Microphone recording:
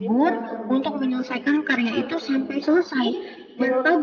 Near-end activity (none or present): present